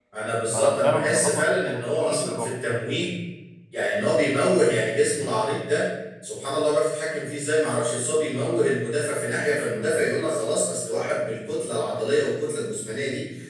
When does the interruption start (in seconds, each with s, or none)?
0.5 s